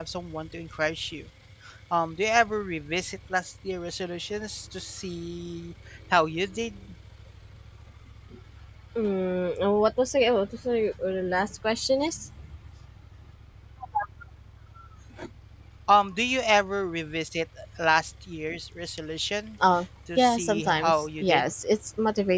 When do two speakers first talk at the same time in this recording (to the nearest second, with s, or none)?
20 s